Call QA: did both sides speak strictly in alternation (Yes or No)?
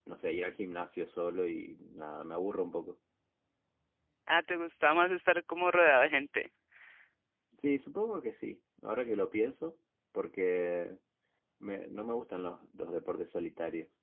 Yes